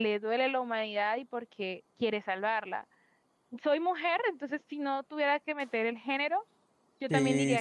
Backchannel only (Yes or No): No